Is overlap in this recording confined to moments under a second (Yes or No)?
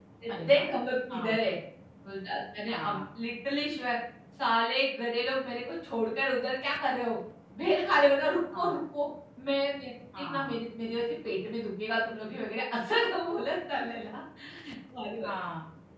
Yes